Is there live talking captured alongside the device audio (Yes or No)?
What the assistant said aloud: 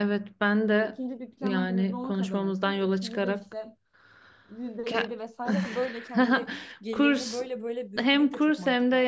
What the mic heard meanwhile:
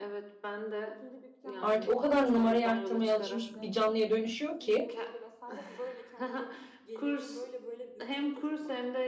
Yes